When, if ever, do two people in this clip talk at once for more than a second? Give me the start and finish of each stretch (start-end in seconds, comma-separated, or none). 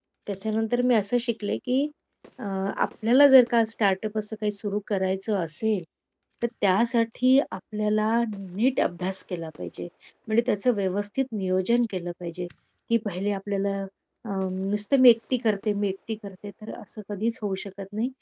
none